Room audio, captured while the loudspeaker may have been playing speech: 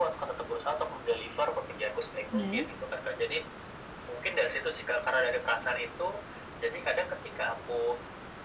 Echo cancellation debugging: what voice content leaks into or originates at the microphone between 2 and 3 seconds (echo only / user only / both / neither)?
both